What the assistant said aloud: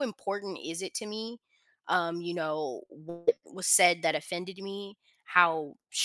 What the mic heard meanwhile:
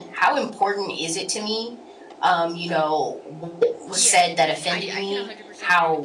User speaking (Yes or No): Yes